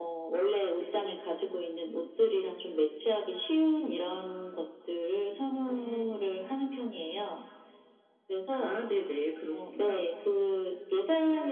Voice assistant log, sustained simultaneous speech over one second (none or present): none